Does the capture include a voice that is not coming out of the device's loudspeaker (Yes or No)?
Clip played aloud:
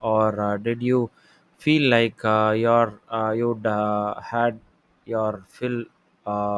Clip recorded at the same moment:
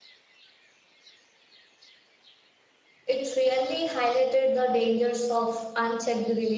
Yes